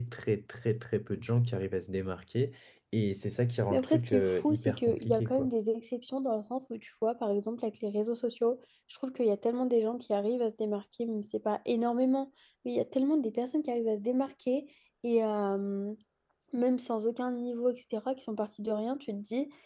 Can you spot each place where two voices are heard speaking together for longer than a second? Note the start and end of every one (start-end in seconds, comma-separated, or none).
3.7-5.5